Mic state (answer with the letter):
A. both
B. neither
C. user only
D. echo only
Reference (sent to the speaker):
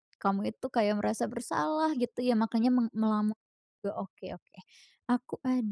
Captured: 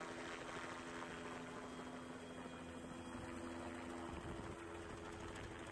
B